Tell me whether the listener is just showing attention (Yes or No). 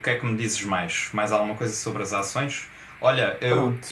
Yes